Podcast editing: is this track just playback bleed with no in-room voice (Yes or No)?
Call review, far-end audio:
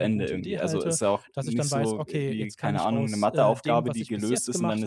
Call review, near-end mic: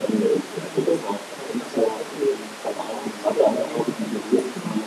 Yes